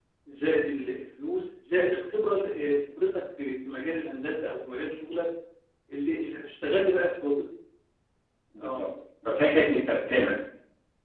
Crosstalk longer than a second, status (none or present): none